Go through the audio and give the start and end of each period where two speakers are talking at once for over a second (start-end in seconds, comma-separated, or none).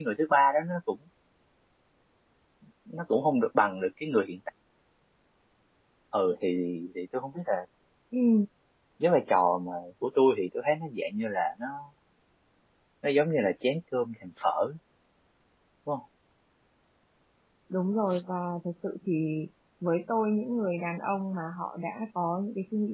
none